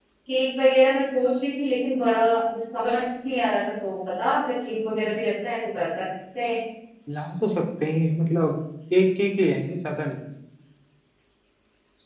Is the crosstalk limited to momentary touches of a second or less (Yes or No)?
Yes